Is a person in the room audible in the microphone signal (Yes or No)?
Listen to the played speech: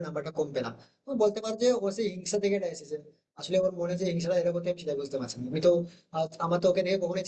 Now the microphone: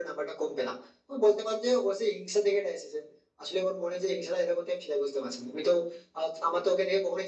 No